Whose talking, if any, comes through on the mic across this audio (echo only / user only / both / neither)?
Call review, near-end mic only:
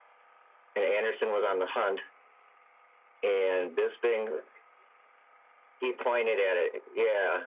echo only